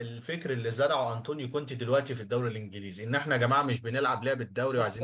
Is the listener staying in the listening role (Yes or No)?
No